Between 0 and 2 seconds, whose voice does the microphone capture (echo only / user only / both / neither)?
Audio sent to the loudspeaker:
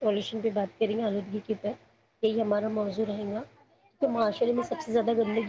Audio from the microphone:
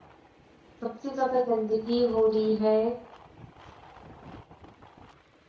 user only